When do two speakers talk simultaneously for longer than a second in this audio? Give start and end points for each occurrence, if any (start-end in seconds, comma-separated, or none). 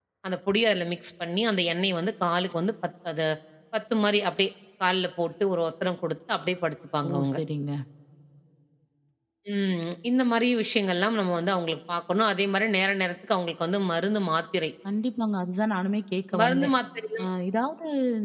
none